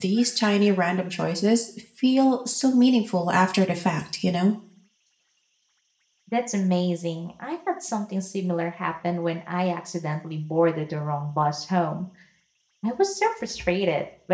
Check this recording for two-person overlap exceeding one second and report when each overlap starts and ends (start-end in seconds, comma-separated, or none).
none